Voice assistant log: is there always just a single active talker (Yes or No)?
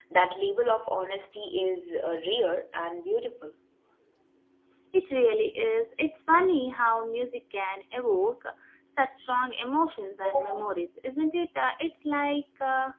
Yes